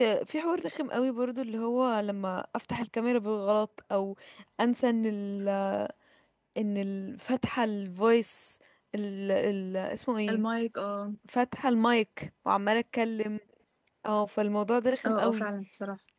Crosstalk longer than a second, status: none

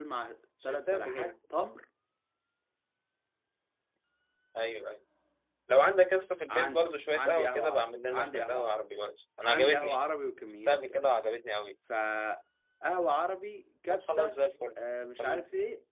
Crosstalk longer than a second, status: present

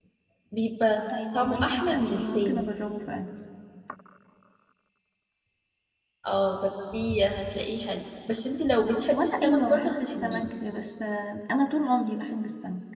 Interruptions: present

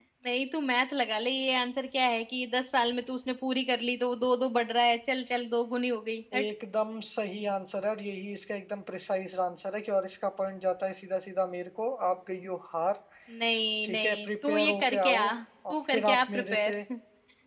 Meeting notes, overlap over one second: present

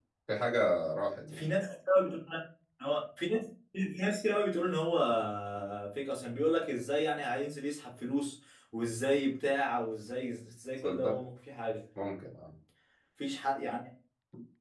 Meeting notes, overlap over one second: none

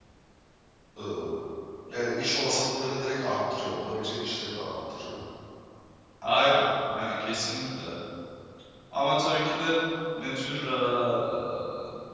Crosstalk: none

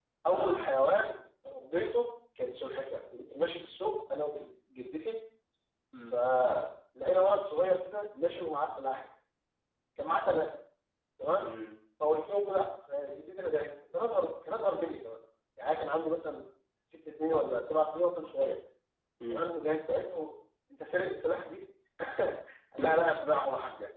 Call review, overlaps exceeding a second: none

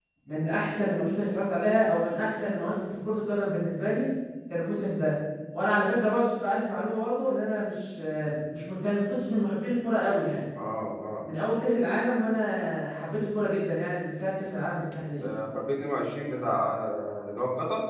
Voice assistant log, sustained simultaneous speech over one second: none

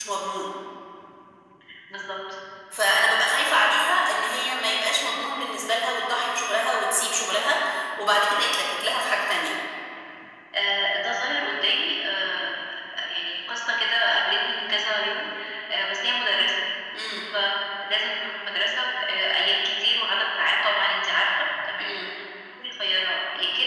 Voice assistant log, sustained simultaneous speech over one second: none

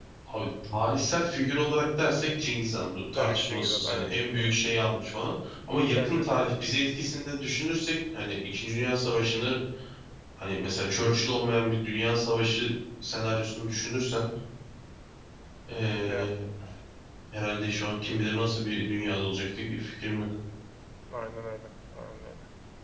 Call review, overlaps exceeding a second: present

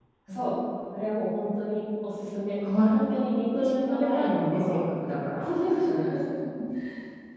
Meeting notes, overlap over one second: present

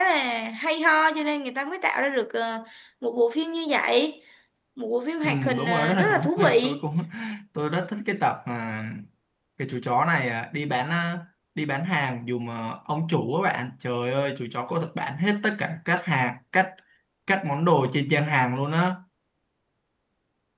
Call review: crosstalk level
present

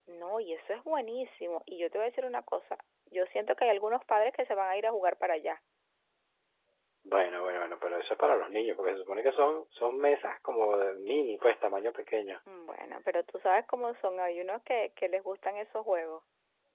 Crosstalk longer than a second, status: none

